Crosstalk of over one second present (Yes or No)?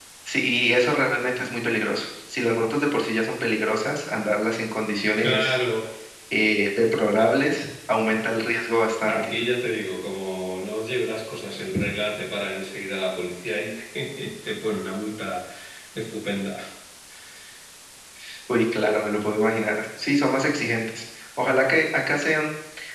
No